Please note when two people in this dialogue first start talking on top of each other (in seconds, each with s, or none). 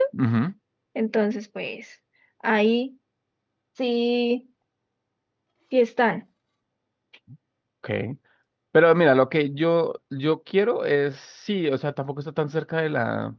none